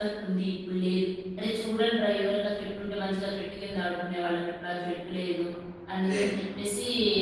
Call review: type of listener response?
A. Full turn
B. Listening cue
B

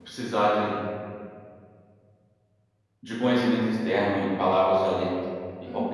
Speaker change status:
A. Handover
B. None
B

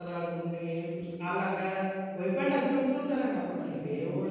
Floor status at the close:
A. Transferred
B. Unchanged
A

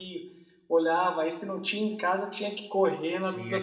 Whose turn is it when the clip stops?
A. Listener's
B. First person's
A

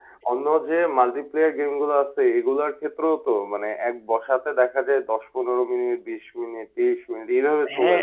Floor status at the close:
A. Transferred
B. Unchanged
A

